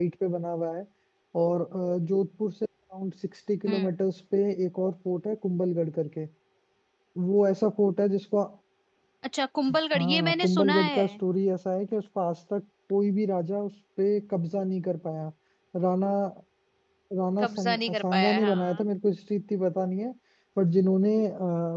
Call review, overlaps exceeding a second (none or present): present